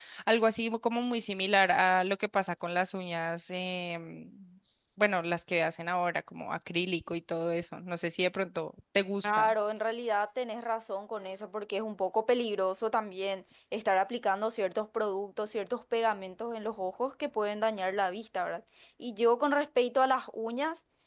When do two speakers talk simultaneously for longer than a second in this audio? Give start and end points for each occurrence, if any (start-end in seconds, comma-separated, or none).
none